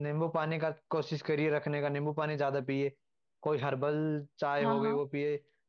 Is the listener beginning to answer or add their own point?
No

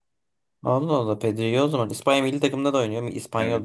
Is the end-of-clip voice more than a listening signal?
Yes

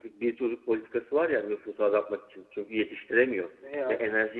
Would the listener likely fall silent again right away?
Yes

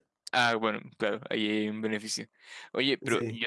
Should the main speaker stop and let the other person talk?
No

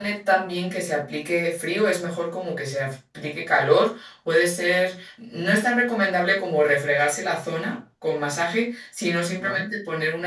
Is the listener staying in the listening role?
Yes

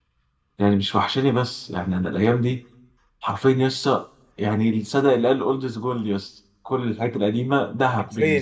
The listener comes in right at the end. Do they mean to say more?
Yes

